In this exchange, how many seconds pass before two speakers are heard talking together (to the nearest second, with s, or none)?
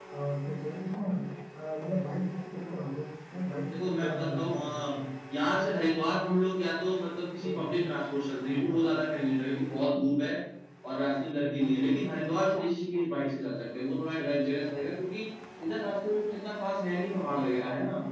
4 s